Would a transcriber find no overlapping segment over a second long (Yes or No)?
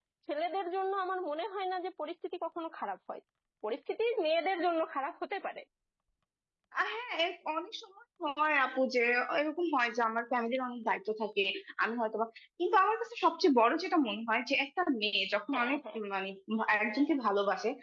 Yes